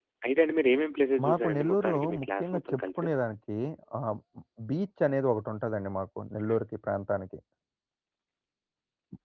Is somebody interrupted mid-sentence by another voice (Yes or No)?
Yes